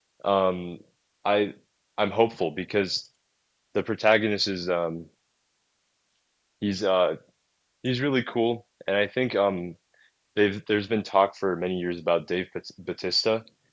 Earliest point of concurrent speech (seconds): none

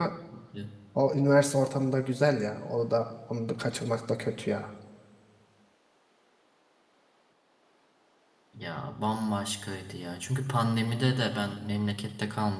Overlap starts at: none

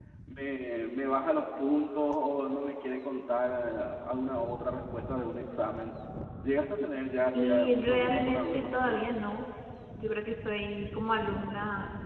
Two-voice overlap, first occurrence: 7.3 s

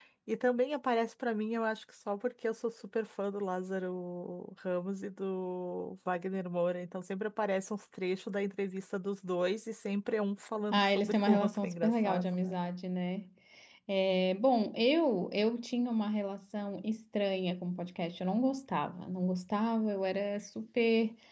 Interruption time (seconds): 10.7 s

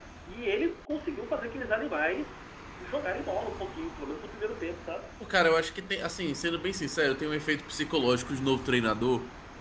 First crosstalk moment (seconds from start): none

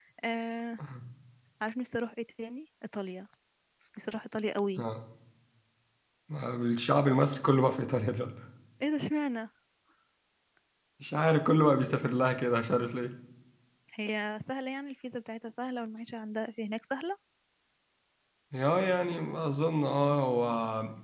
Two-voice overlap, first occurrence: none

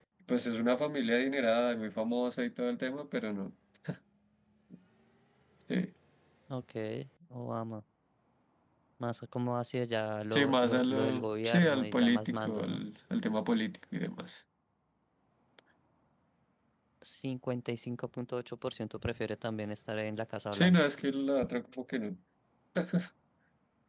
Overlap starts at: 10.3 s

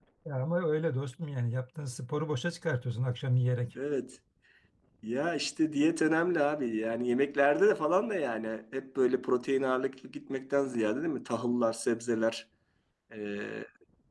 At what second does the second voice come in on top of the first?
none

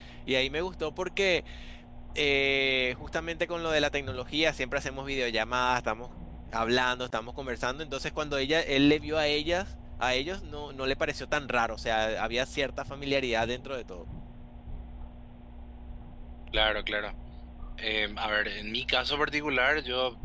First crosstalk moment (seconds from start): none

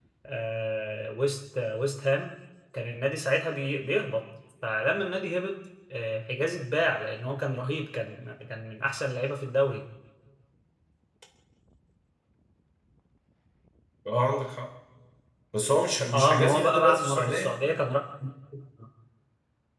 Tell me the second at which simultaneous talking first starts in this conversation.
16.1 s

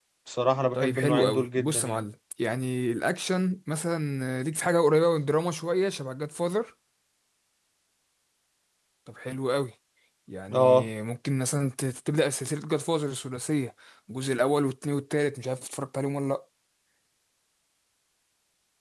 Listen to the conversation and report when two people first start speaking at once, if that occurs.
0.7 s

